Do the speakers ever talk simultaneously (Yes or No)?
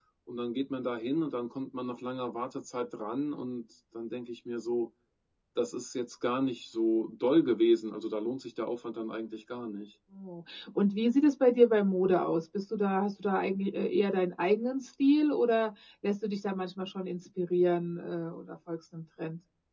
No